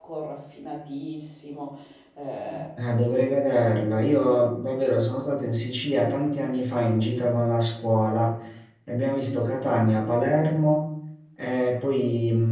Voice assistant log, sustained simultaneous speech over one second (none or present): none